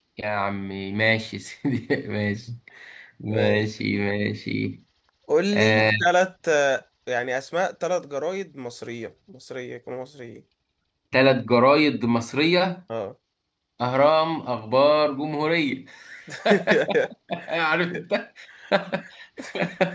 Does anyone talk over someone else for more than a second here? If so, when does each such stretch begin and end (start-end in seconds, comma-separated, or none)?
none